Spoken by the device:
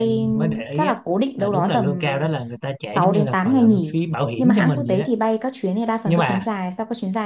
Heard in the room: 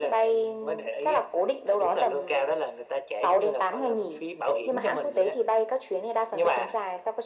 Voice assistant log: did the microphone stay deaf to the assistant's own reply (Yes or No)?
No